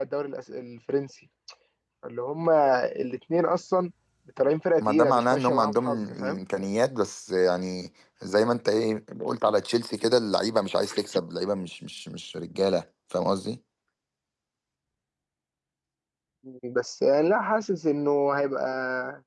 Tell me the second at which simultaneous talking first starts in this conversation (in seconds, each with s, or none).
4.8 s